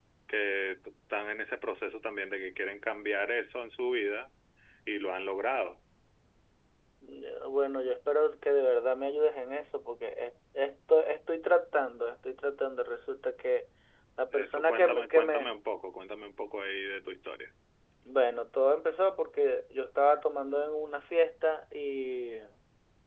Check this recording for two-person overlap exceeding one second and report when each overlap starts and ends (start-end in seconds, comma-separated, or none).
14.3-15.5